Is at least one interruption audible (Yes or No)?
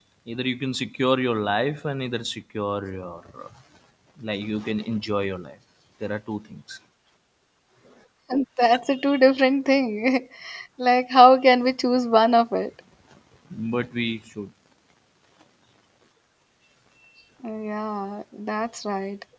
No